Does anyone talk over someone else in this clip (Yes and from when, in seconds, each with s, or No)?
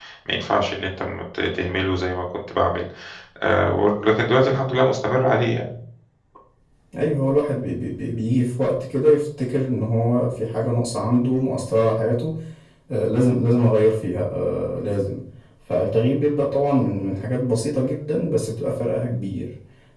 No